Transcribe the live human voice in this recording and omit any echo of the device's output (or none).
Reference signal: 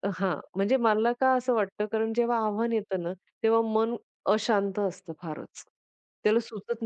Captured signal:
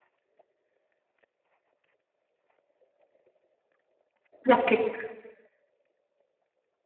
नक्कीच.